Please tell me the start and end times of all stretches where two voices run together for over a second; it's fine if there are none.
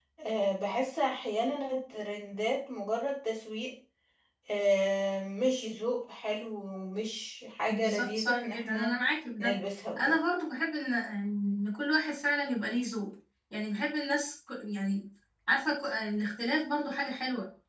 7.7-9.0

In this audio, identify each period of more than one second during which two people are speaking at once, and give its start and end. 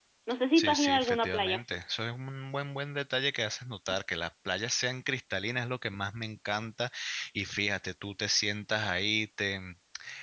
0.6-1.8

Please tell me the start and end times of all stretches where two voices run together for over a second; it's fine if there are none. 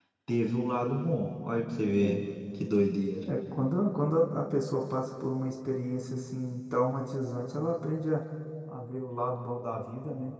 none

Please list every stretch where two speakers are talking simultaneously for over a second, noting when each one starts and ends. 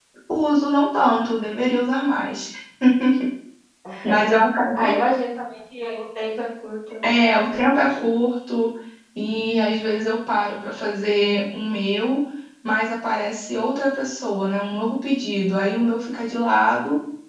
none

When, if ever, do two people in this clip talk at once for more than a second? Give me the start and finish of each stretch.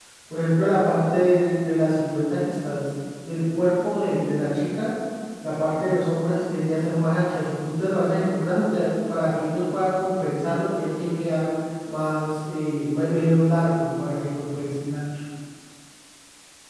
none

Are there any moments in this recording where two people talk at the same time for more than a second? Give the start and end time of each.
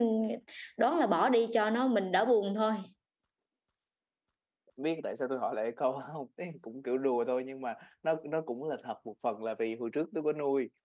none

